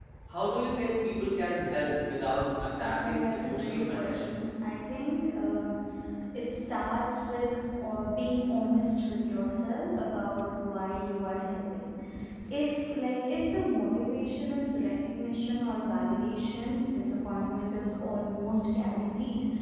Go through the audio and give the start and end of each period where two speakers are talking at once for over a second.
2.8-4.5

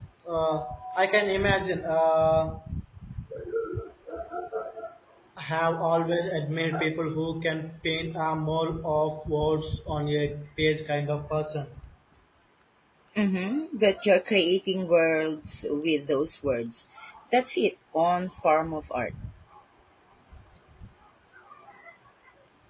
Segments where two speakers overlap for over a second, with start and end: none

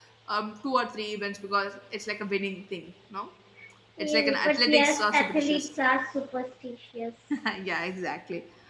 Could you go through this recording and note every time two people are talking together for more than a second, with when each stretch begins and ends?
4.0-5.7

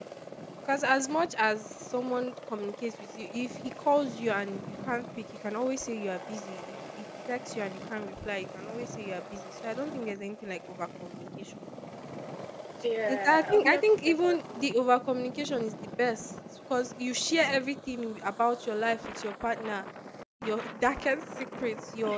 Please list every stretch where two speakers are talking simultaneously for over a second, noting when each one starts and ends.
13.1-14.6

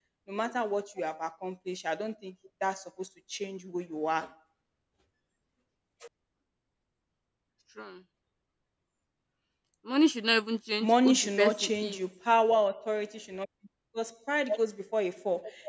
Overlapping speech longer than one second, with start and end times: 10.8-12.0

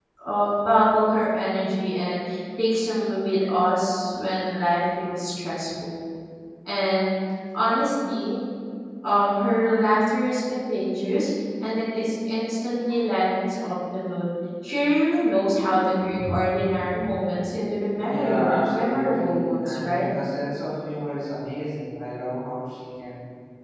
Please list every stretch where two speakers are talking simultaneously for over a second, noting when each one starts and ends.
18.0-20.1

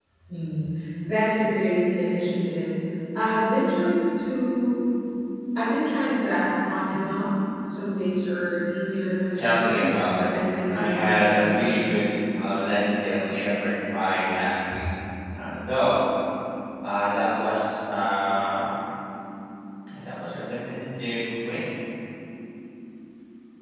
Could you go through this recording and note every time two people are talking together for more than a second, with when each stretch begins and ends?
9.3-12.0

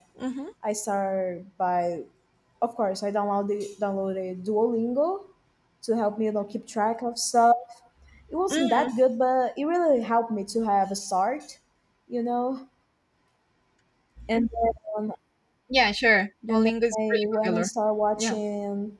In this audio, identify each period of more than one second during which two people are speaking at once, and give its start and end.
16.5-17.7

